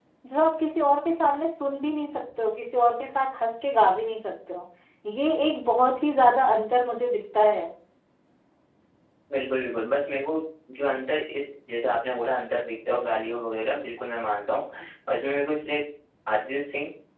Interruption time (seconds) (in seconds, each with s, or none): none